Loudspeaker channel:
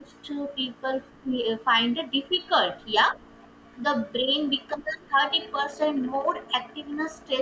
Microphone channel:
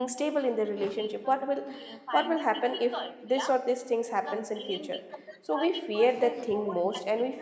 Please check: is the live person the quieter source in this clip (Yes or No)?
No